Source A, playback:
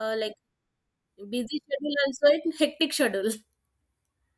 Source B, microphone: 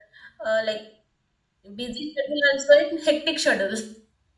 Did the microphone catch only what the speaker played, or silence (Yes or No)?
Yes